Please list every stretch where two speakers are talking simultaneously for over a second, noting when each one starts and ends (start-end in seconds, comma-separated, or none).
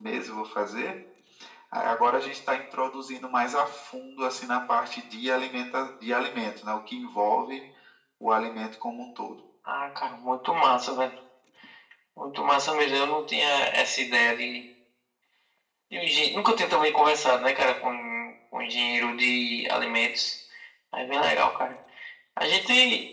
none